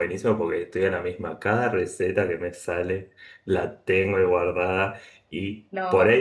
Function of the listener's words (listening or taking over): listening